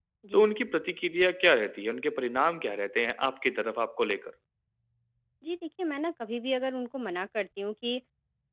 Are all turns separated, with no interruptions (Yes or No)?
Yes